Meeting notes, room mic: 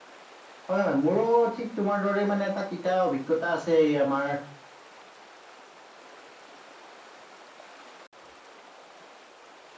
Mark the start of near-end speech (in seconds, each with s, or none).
0.7 s